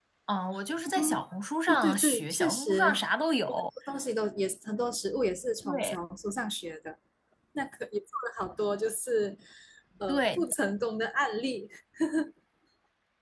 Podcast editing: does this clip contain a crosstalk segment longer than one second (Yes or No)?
Yes